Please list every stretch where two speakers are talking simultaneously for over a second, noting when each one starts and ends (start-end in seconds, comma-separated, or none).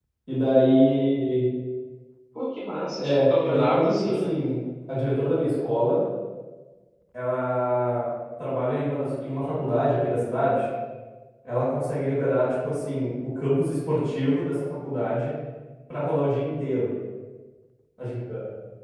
3.0-4.3